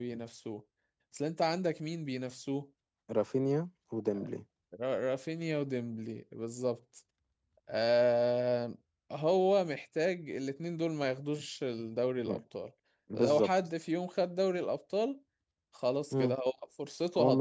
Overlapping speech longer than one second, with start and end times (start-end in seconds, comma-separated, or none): none